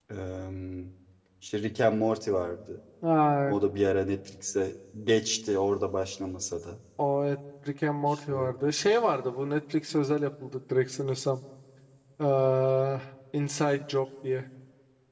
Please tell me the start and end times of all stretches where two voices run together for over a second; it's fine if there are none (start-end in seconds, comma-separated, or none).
none